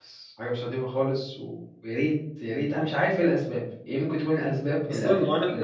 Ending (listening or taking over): taking over